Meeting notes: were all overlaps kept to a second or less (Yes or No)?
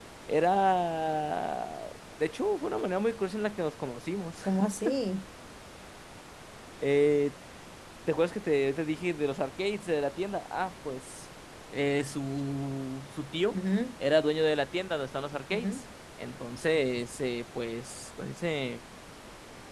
Yes